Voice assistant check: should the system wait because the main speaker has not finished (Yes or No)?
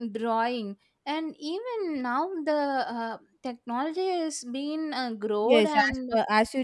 No